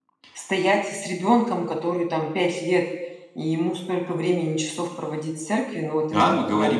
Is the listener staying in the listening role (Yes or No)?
No